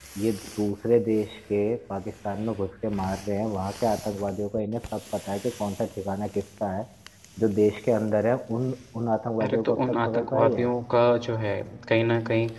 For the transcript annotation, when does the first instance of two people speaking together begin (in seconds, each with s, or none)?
9.4 s